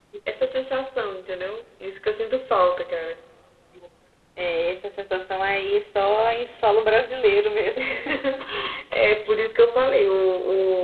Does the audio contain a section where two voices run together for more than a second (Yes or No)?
No